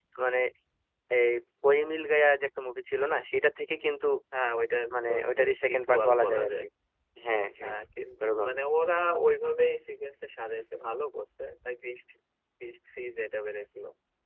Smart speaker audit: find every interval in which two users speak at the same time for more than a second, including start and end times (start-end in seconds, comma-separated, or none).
4.9-6.6